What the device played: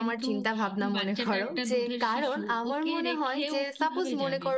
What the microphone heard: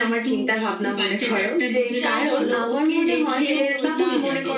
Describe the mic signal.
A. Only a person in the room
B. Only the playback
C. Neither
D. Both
D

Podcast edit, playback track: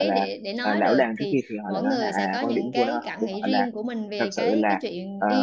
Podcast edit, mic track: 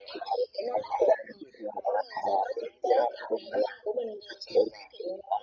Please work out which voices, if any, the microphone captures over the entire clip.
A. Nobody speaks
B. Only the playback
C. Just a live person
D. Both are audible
B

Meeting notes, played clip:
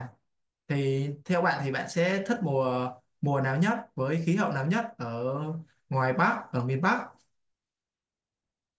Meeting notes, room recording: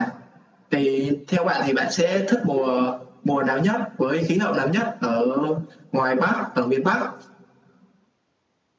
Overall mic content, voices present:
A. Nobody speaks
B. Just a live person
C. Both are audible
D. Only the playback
D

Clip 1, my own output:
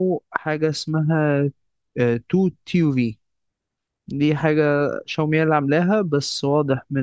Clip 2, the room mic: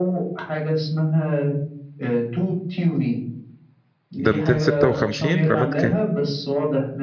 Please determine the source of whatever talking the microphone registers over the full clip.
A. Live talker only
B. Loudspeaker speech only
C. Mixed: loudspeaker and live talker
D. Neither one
C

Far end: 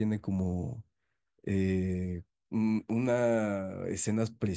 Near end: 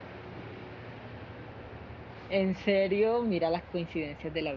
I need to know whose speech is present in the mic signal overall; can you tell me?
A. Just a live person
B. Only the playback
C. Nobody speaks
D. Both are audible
A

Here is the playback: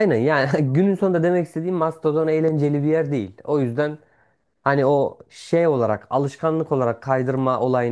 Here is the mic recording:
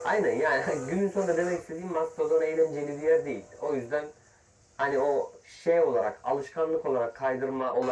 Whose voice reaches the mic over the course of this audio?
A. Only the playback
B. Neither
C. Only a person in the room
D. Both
A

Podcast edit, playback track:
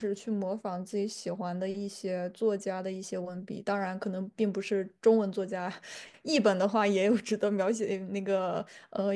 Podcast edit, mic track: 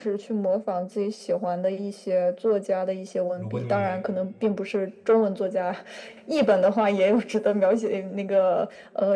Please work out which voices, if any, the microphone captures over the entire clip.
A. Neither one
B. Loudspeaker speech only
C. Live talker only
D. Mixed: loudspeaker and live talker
D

